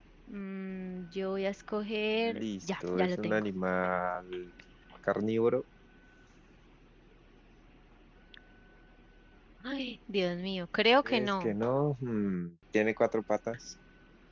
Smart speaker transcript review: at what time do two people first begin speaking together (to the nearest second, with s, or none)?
2 s